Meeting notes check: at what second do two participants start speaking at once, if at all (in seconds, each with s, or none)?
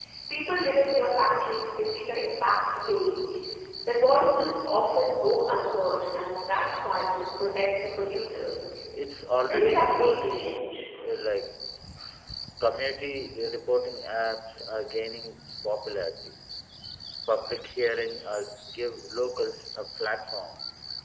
9.4 s